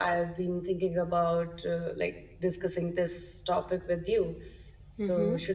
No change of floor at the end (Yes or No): No